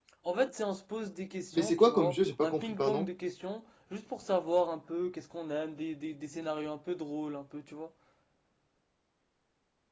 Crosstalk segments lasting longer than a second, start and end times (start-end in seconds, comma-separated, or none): 1.5-3.1